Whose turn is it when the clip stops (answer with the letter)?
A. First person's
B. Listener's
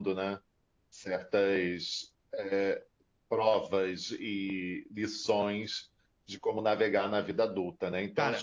A